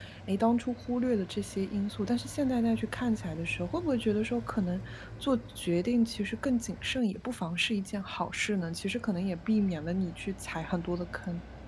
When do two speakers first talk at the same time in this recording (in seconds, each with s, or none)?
none